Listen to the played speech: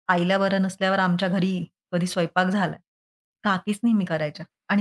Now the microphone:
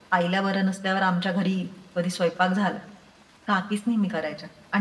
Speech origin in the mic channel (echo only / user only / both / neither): echo only